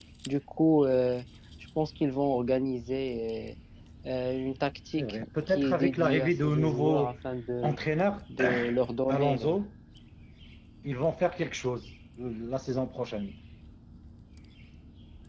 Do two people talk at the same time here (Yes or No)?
Yes